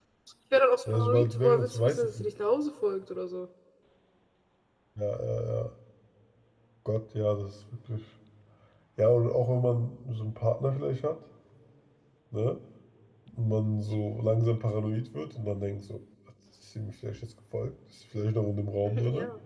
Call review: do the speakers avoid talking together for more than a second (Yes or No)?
No